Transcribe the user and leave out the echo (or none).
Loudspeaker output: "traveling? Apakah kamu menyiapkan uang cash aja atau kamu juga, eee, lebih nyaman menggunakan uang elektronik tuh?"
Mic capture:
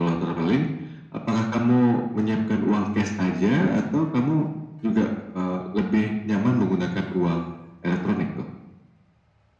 none